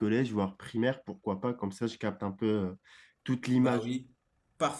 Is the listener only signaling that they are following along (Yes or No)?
No